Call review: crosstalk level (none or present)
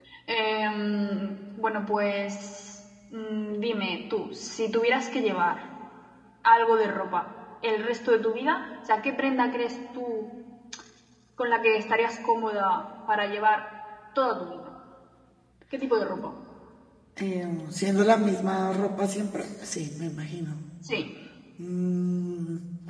none